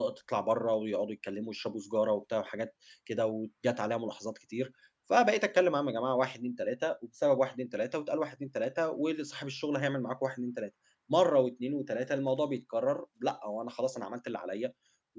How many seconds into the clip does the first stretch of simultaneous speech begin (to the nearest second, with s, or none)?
none